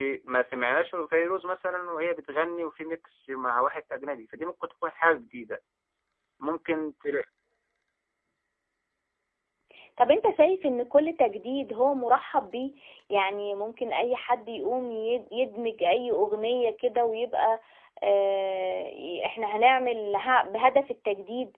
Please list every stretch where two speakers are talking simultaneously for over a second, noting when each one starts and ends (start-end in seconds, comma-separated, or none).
none